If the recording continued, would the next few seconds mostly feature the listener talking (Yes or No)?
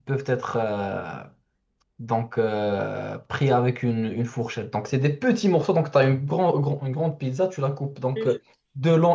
No